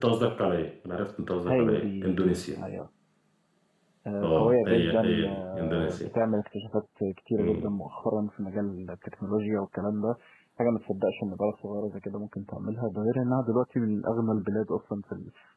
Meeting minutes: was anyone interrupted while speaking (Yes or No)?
Yes